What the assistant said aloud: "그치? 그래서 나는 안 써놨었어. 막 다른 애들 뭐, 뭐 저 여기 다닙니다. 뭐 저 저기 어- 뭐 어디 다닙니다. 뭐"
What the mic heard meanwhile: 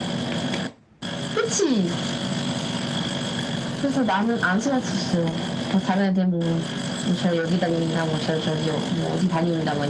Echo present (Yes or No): Yes